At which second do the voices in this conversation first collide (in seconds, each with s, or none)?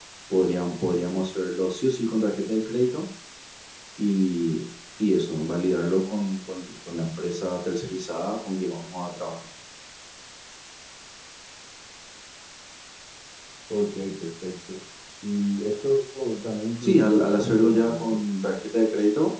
16.8 s